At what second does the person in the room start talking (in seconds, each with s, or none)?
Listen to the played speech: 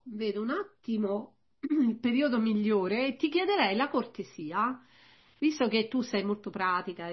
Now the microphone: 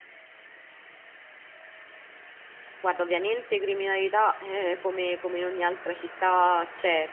2.8 s